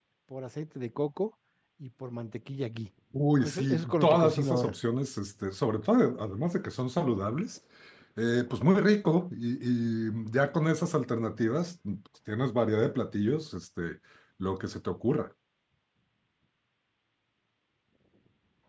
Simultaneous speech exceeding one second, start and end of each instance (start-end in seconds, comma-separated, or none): 3.4-4.7